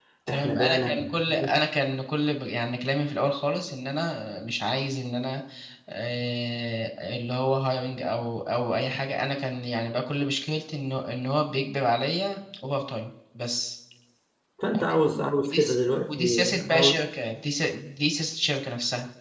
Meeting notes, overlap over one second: present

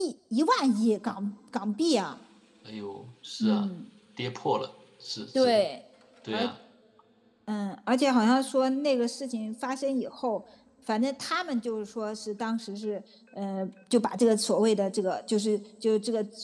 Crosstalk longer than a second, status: none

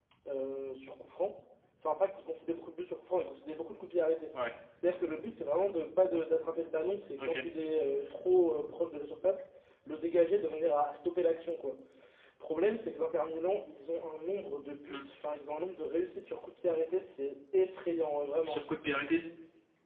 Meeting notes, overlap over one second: none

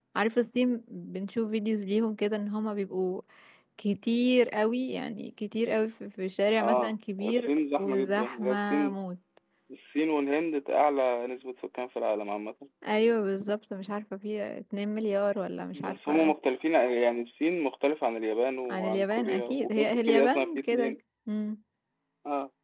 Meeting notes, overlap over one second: present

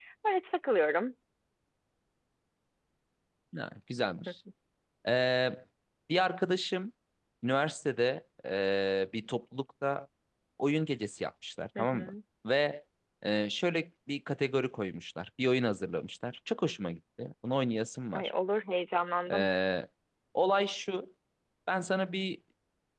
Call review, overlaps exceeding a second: none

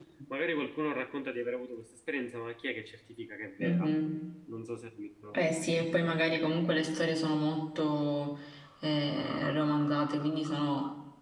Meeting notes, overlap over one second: none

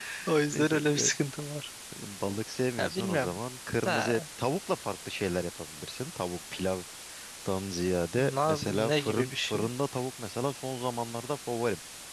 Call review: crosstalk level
present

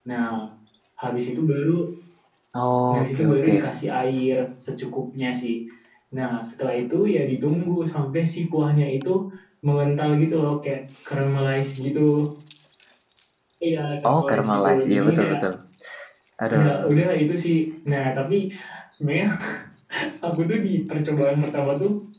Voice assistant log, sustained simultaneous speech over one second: present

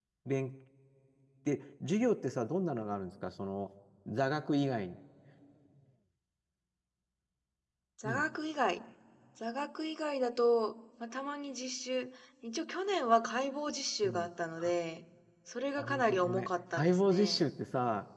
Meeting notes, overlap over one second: present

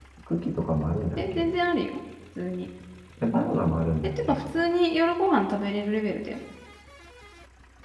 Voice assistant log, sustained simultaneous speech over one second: none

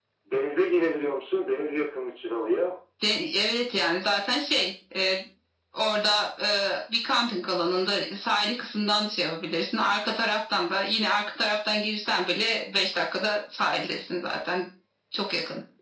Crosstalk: none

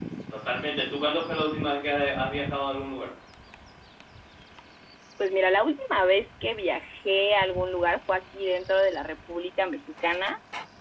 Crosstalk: none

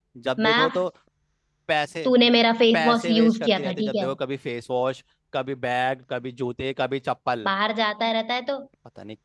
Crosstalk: present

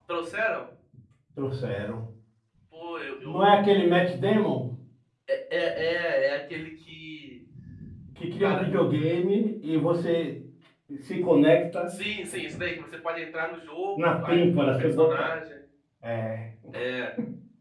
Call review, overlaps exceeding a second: present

